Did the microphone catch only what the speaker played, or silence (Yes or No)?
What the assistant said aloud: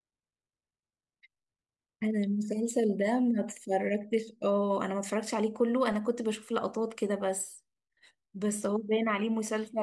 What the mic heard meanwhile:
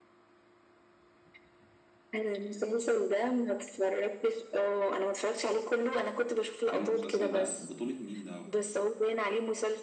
No